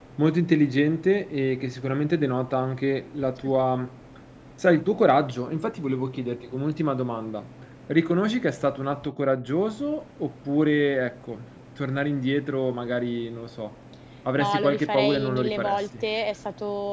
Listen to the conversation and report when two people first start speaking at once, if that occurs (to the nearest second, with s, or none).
14 s